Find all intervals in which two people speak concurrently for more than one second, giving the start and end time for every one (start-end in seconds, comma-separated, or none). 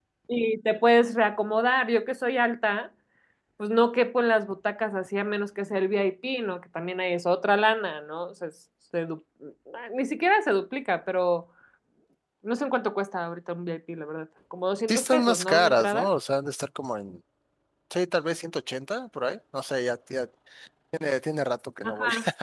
14.9-16.1